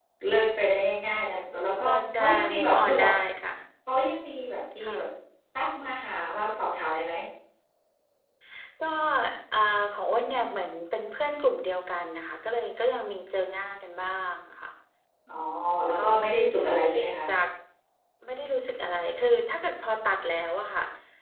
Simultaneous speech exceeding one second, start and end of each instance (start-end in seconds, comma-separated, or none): 1.8-3.1